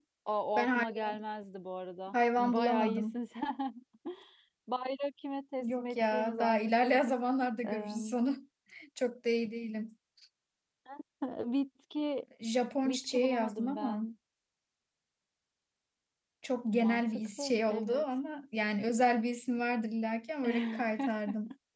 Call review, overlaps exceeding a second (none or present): present